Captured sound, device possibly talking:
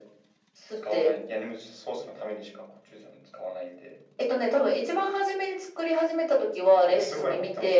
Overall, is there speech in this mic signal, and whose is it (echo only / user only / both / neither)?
echo only